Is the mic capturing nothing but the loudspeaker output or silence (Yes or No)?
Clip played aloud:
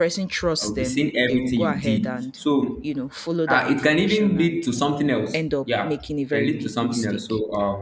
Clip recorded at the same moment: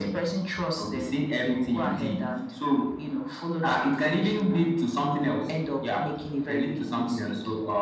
Yes